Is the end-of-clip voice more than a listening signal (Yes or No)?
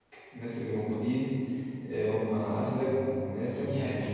Yes